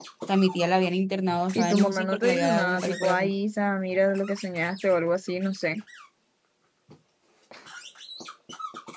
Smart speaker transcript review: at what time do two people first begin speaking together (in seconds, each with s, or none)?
1.6 s